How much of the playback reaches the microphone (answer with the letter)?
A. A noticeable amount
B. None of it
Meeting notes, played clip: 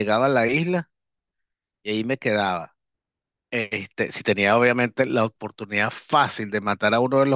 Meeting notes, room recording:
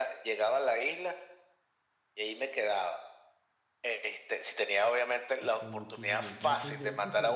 A